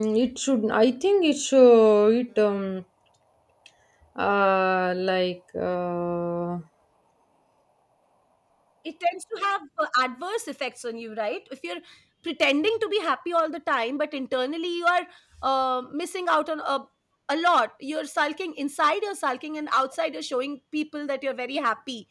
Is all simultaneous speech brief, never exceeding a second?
Yes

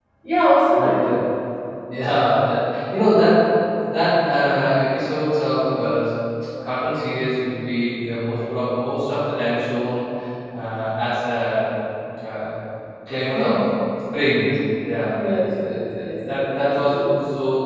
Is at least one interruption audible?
Yes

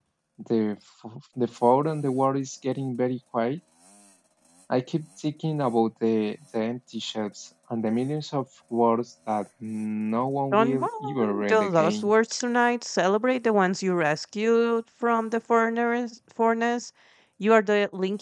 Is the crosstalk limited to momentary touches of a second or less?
No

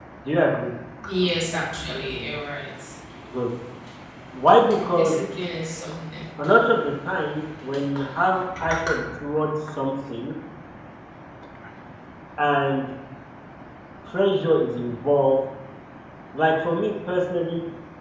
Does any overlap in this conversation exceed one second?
No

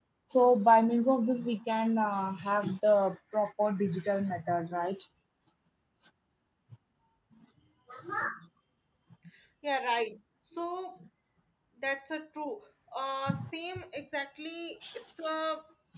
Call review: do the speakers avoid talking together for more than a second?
Yes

